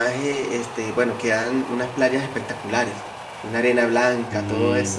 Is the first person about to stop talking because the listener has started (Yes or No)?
No